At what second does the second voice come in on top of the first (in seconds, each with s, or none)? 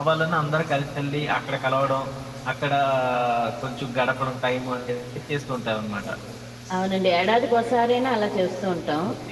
none